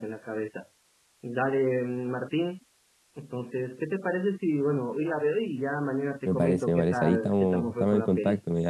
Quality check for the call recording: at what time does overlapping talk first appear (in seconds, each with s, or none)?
6.2 s